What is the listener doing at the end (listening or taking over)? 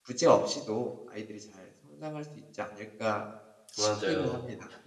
taking over